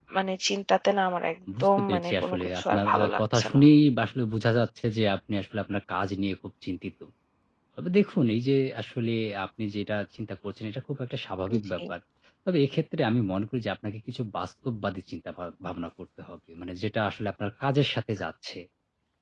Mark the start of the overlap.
1.6 s

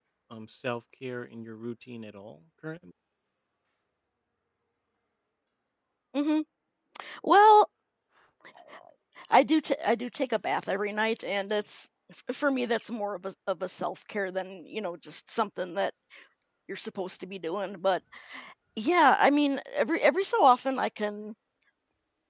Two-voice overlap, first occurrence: none

